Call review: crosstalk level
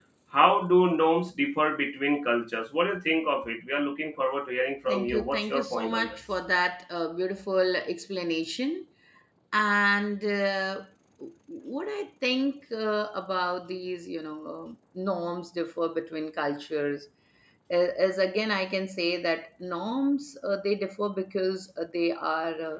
present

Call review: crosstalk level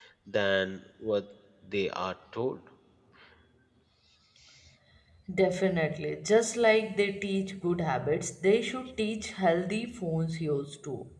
none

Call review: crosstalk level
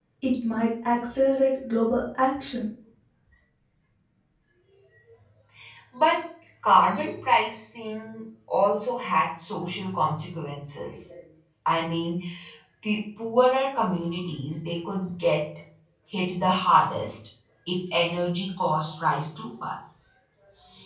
none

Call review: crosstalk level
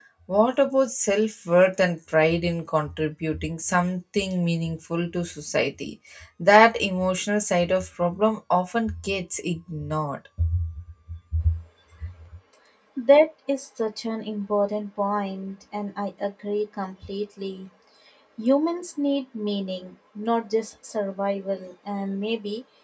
none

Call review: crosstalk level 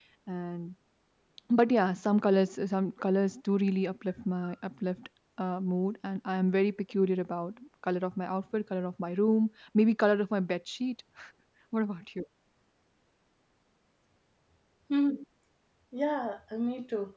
none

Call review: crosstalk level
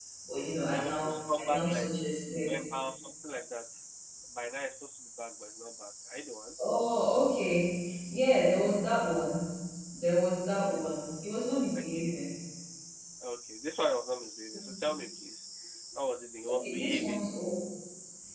present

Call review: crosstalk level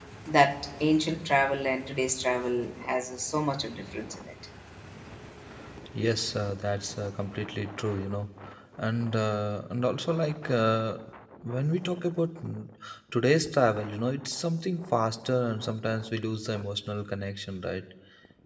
none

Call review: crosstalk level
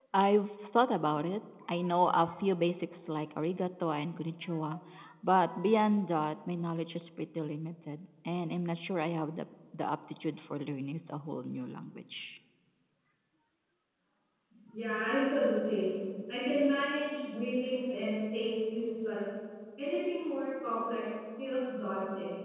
none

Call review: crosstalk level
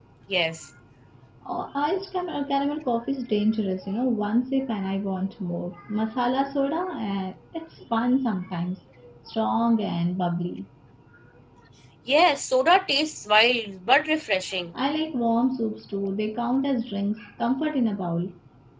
none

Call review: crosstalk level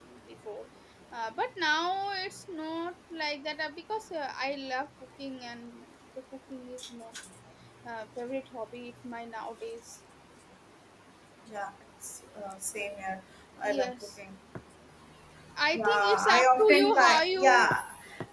present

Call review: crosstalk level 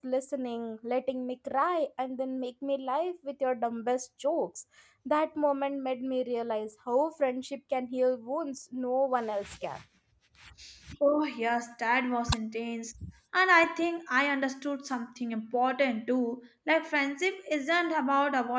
none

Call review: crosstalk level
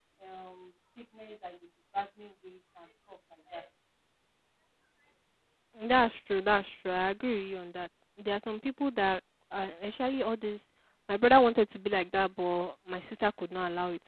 none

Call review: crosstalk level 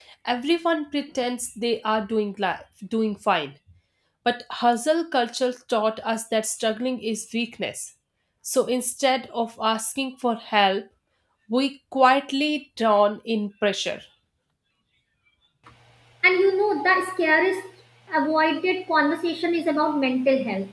none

